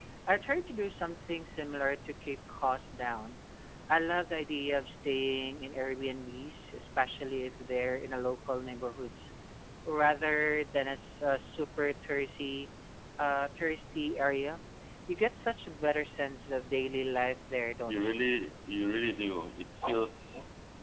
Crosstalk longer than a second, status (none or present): none